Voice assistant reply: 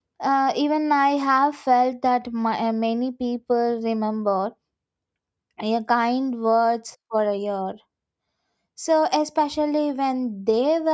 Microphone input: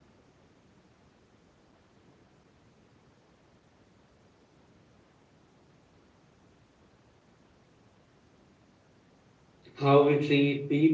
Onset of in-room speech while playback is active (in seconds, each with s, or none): 9.7 s